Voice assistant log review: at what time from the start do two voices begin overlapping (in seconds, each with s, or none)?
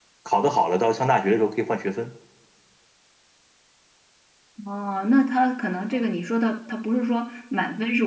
none